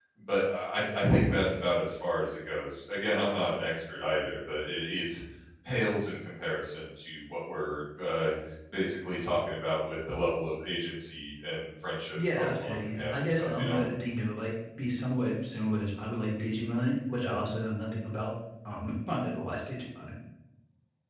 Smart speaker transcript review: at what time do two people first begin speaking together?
12.2 s

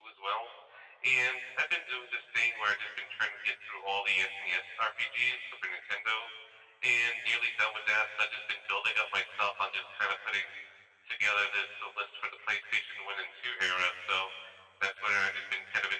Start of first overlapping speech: none

